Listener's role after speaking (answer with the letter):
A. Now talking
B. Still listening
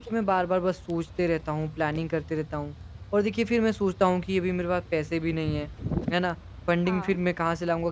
B